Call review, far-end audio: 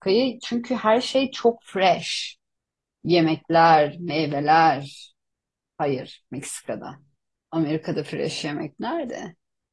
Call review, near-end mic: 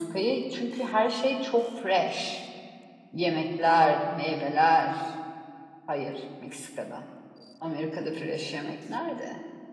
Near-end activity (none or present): none